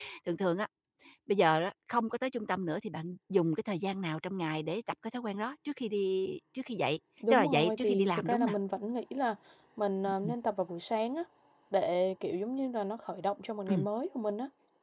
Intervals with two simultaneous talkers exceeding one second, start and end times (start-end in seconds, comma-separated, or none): 7.3-8.5